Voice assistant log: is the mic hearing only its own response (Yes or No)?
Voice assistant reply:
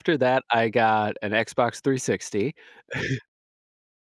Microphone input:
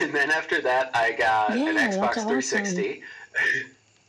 No